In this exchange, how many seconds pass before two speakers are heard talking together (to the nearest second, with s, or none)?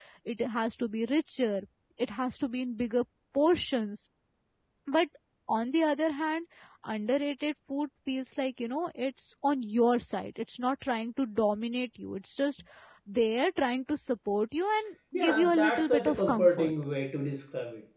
15 s